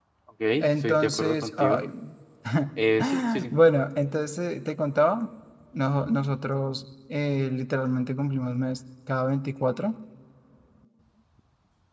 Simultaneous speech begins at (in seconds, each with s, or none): 0.6 s